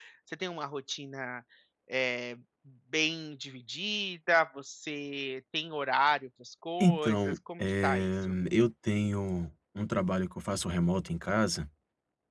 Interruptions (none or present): present